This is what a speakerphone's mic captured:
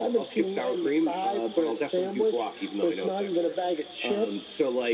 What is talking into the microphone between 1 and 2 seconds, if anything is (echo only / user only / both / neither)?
echo only